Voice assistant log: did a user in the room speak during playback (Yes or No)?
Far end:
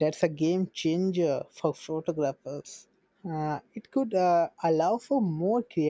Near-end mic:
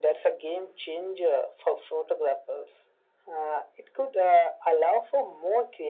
No